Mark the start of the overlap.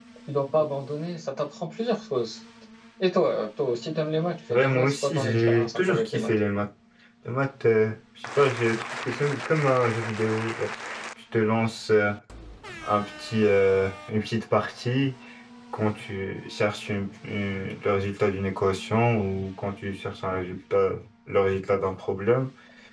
4.5 s

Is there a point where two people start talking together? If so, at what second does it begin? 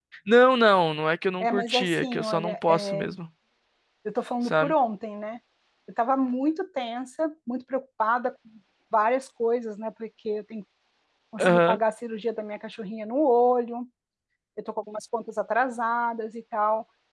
1.4 s

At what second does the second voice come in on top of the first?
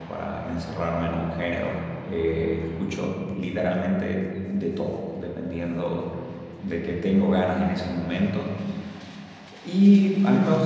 none

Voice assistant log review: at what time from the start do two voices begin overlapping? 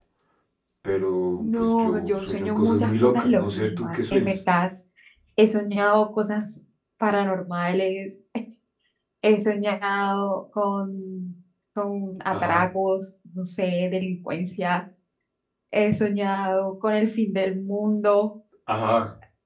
1.4 s

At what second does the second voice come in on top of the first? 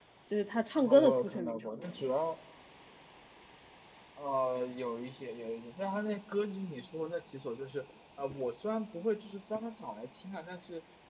0.8 s

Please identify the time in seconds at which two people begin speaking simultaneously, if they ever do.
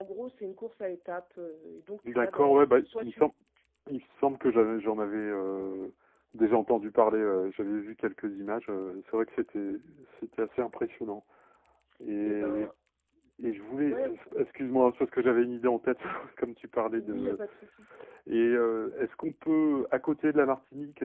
2.1 s

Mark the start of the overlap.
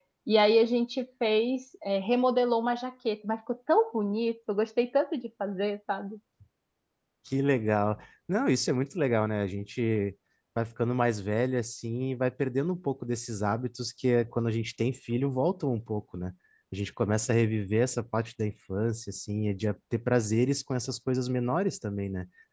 none

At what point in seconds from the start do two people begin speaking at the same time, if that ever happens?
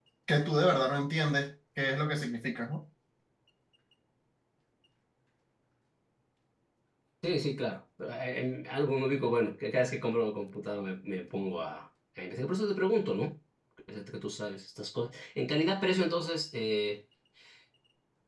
none

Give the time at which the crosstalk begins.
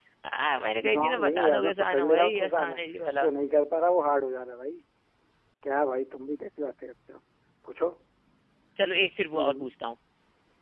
0.9 s

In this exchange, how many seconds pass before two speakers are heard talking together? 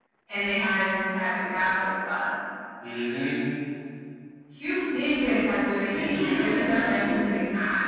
5.9 s

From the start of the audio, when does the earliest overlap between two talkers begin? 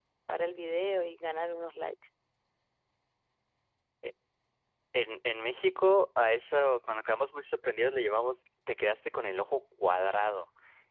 none

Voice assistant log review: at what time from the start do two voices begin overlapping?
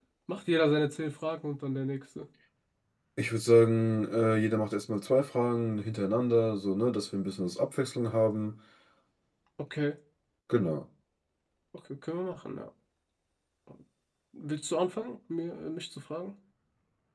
none

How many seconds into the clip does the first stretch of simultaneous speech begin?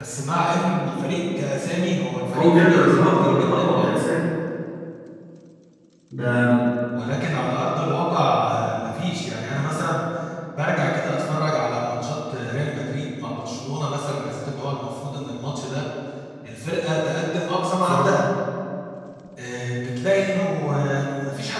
2.3 s

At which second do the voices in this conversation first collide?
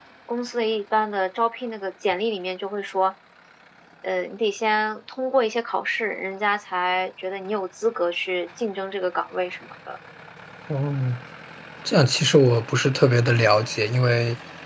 none

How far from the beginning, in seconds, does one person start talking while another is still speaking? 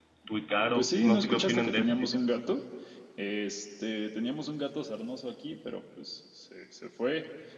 0.7 s

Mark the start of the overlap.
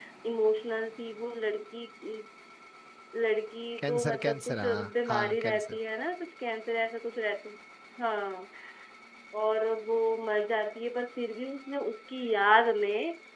3.8 s

